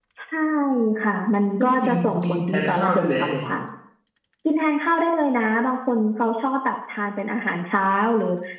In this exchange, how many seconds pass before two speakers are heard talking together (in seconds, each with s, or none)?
1.6 s